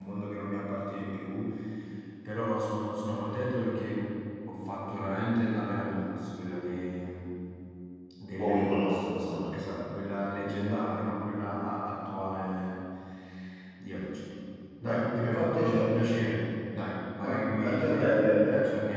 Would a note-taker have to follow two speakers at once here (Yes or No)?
Yes